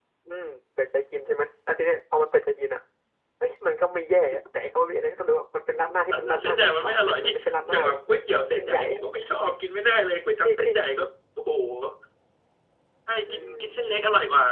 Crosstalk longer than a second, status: present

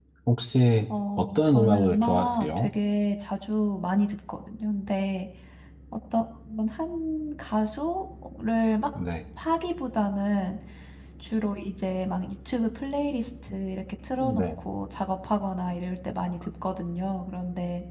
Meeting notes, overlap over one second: present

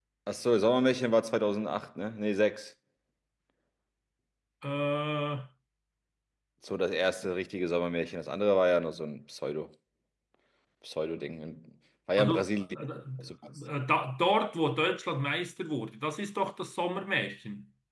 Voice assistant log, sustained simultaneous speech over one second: none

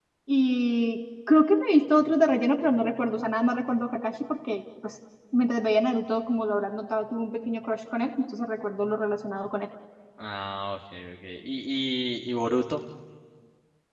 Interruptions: none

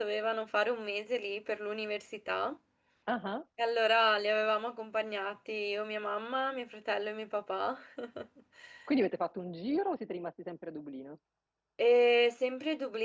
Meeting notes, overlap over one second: none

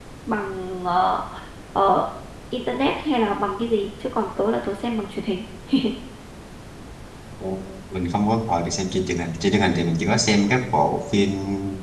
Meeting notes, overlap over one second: none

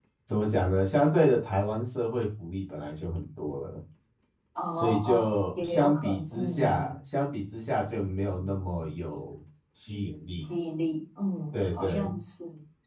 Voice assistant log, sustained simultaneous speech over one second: present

